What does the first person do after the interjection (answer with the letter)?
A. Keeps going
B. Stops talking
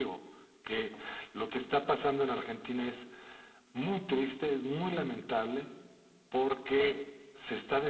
A